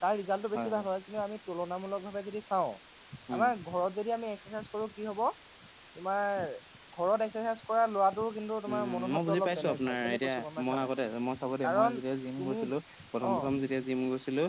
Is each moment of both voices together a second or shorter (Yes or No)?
No